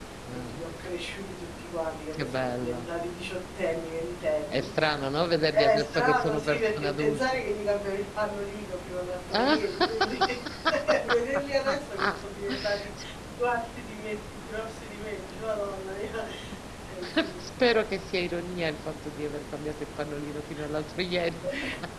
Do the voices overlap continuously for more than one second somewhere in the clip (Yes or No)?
Yes